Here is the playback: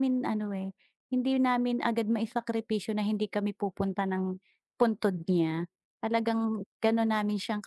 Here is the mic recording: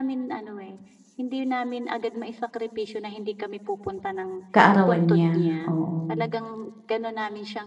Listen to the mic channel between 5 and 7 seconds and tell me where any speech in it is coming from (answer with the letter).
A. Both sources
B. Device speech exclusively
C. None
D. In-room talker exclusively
A